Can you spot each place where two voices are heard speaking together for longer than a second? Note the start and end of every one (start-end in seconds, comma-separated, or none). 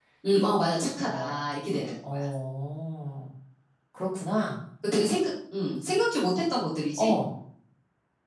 none